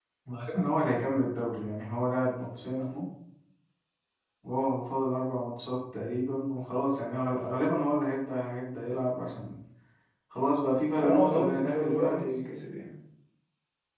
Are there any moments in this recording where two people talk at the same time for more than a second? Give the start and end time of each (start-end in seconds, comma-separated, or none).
11.0-12.4